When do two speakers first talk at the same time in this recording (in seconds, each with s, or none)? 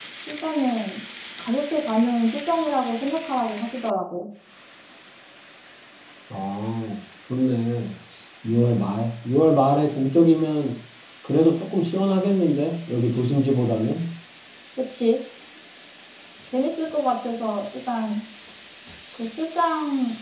none